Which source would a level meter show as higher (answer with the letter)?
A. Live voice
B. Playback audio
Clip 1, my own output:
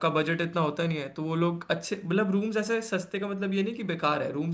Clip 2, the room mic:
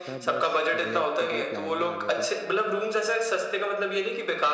B